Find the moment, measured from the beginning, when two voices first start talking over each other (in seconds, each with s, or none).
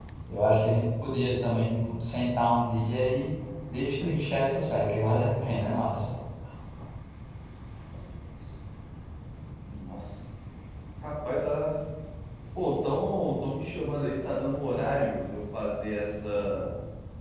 none